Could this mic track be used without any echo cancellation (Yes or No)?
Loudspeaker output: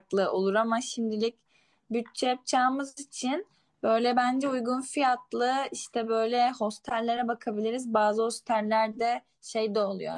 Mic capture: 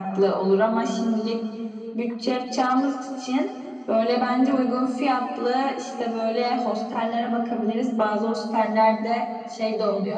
No